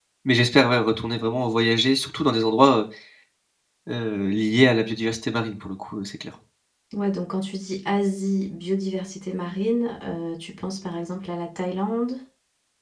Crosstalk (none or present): none